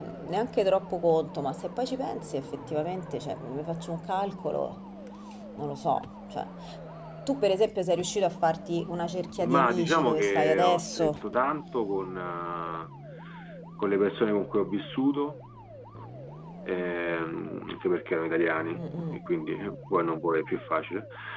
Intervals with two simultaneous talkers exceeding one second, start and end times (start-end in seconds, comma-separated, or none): 9.4-11.1